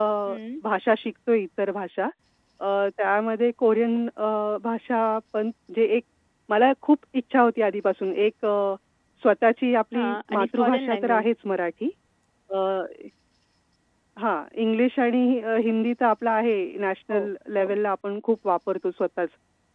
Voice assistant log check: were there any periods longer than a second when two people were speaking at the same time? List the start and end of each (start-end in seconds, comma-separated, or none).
9.9-11.2